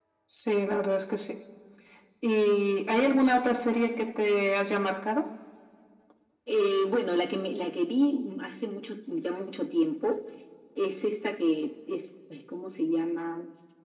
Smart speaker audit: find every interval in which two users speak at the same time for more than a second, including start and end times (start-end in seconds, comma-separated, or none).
none